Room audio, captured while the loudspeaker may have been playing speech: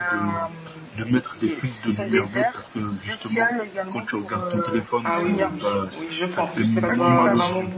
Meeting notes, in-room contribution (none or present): present